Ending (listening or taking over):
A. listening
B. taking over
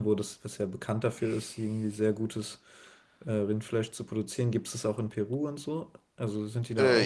B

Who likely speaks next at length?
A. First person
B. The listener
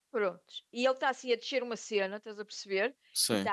A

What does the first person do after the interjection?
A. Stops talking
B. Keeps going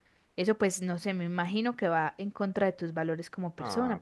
A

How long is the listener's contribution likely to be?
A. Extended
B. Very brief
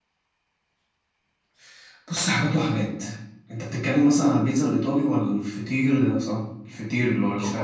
A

